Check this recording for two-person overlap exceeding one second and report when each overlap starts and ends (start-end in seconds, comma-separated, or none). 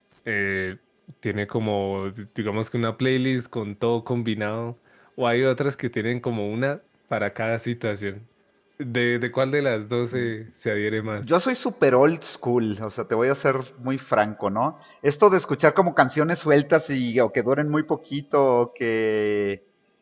none